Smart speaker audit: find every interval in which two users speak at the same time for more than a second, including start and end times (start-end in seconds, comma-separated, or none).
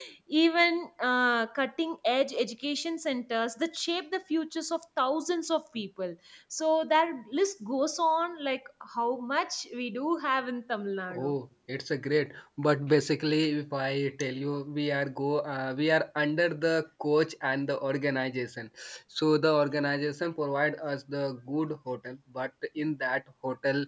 none